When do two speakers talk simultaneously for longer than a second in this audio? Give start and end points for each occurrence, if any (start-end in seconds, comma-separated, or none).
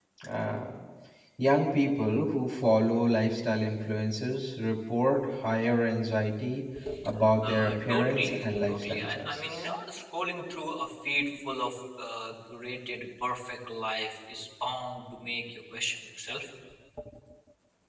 7.4-9.6